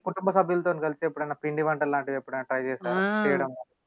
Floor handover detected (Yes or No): Yes